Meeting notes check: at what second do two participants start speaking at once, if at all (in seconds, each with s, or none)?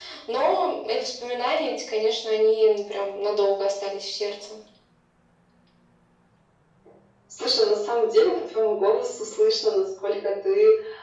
none